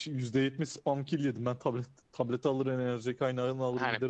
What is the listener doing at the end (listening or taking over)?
taking over